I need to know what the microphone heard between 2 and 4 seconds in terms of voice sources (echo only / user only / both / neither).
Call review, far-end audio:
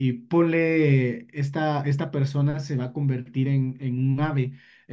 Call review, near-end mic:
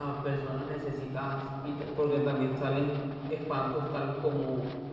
user only